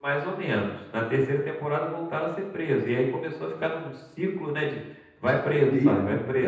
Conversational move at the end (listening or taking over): taking over